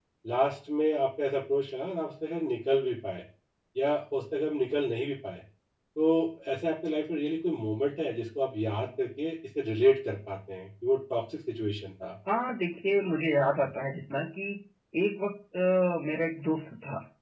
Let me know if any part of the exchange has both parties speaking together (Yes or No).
No